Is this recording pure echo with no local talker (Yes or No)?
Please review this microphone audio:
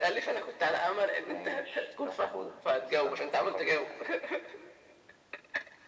Yes